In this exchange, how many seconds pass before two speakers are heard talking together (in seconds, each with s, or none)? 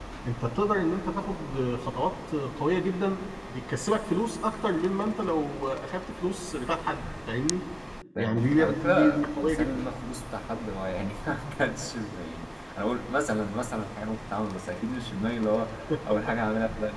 8.2 s